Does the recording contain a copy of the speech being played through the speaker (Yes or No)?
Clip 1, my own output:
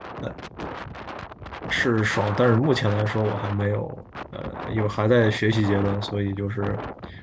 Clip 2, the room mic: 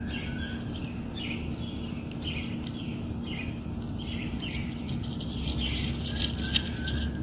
No